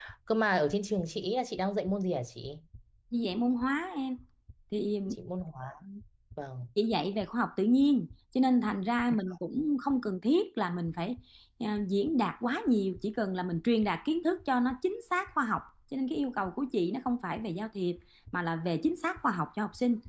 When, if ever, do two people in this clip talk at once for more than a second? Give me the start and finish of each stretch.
none

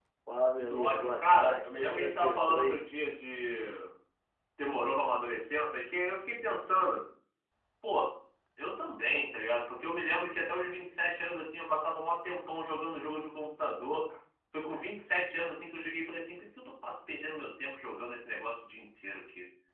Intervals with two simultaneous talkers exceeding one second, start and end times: 0.6-2.8

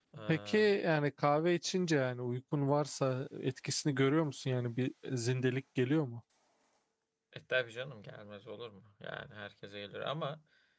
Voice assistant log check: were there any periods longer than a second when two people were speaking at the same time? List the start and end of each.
none

